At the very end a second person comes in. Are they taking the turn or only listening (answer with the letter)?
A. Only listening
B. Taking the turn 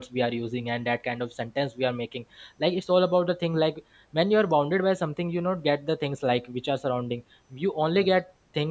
A